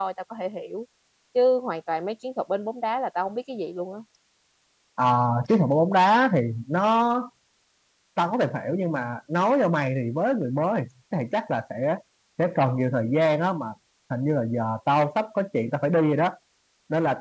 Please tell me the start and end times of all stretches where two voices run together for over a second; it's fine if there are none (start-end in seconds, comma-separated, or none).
none